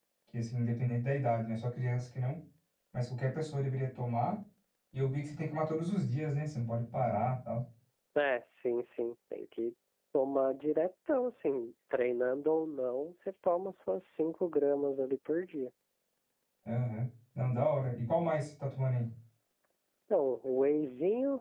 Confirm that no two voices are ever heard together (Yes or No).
Yes